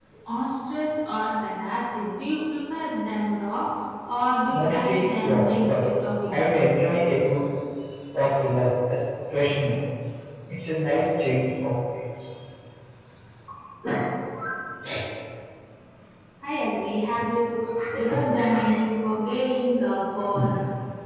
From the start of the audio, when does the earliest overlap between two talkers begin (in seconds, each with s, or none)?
4.5 s